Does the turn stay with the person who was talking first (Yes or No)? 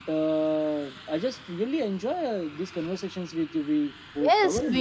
No